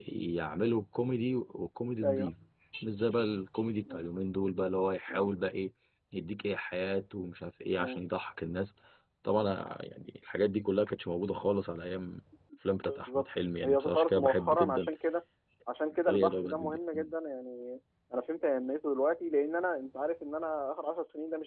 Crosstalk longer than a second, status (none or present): present